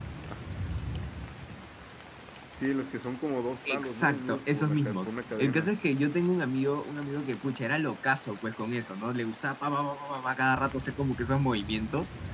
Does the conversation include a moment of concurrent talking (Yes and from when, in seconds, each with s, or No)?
Yes, from 3.6 s